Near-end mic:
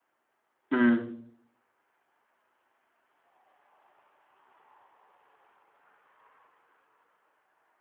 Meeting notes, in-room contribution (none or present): present